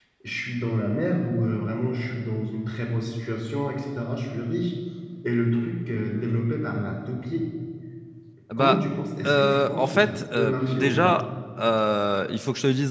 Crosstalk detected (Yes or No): Yes